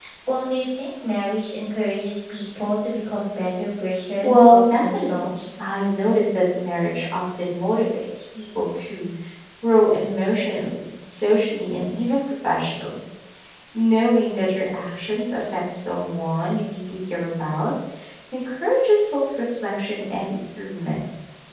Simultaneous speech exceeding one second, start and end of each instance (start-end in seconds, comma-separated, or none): 4.2-5.5